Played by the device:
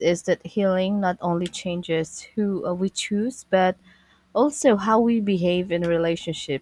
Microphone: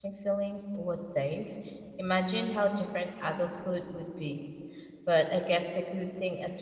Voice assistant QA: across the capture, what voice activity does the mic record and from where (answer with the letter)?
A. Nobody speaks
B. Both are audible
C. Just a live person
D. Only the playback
C